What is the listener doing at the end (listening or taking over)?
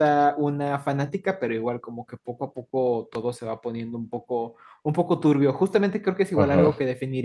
listening